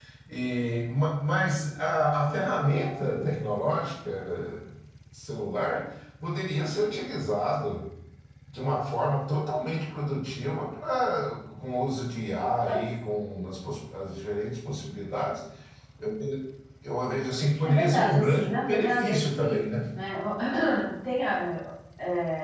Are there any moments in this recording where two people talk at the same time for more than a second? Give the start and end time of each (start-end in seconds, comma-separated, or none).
17.6-19.6